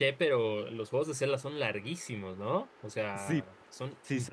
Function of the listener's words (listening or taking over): taking over